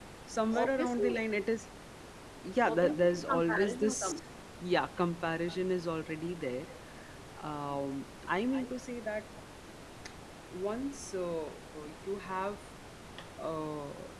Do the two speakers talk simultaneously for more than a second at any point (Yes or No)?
Yes